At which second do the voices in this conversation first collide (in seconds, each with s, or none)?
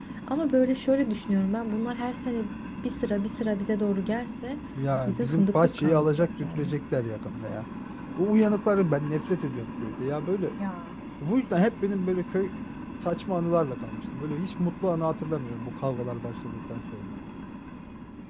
5.1 s